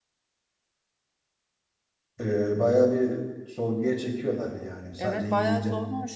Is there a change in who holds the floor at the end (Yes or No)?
Yes